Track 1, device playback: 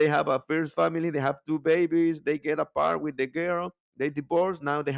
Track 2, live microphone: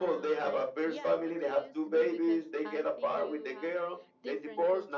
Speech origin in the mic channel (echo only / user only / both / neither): both